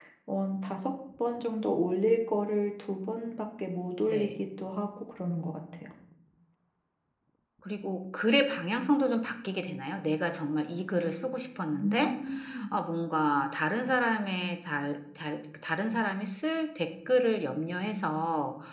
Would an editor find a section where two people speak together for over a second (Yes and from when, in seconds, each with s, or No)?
No